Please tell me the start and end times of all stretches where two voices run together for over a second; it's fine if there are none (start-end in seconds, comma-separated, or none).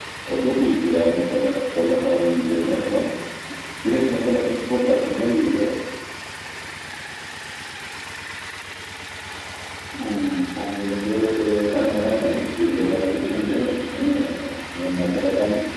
11.7-14.0